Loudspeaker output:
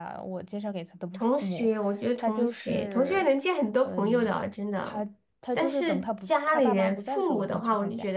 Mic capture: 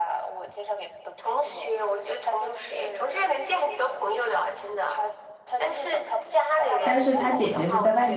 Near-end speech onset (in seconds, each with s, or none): 6.8 s